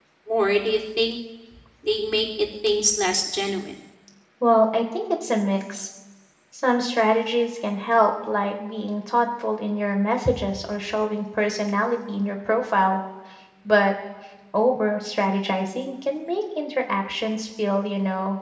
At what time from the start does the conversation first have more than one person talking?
none

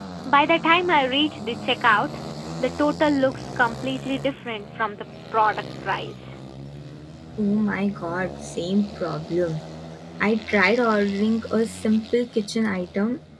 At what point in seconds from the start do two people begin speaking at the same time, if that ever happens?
none

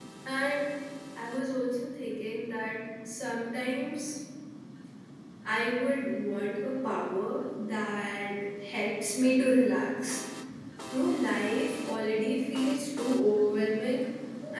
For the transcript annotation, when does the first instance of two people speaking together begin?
none

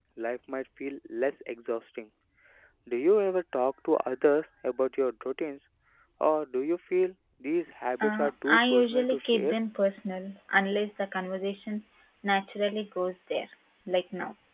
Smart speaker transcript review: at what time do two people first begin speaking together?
8.0 s

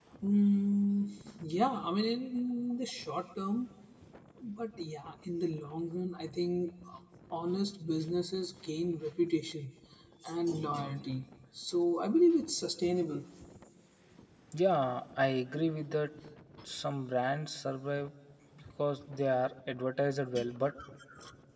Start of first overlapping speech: none

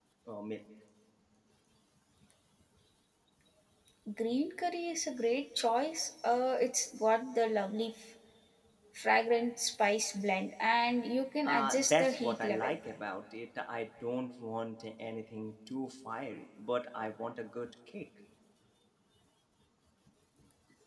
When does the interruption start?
11.4 s

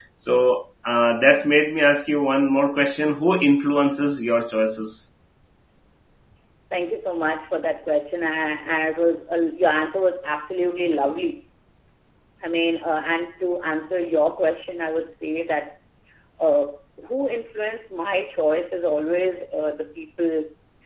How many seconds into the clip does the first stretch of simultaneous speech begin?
none

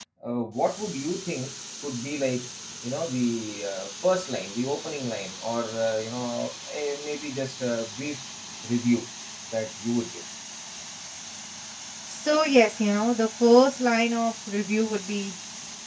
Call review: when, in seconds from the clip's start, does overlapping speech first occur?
none

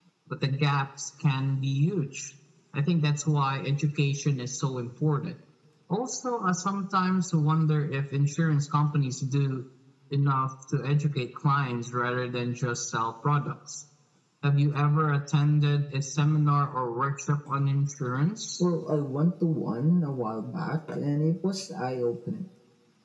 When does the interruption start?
none

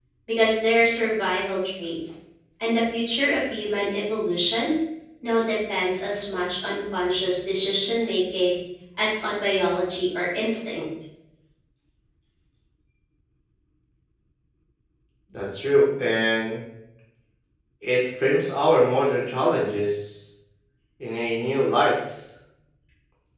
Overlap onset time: none

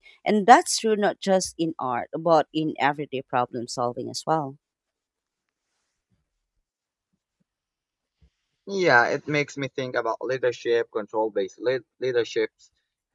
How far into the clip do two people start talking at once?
none

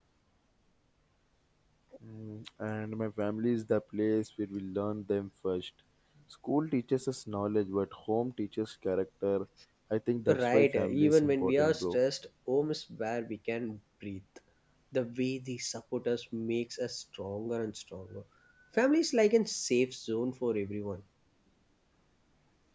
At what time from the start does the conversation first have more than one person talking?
10.4 s

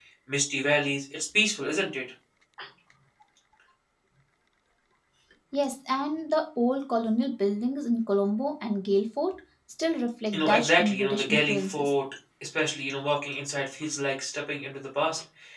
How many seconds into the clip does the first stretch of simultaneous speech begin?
10.3 s

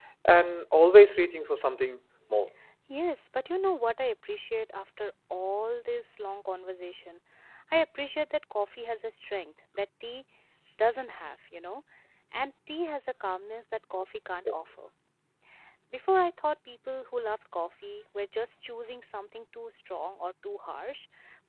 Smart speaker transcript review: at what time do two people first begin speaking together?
none

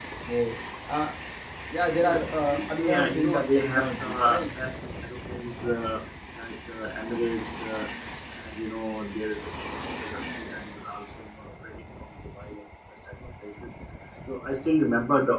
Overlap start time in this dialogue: 2.0 s

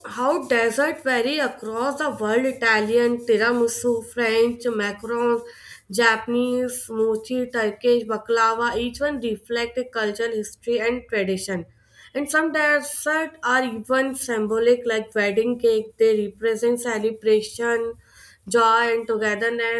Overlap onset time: none

